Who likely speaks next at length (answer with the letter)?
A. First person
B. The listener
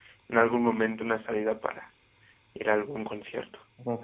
B